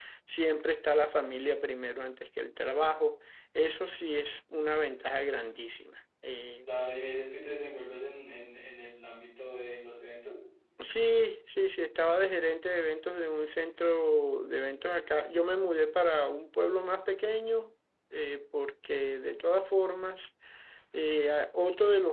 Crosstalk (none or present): none